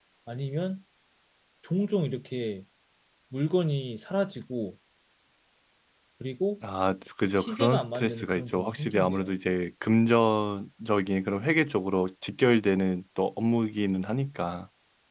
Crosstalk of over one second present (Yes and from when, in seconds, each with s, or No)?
Yes, from 7.4 s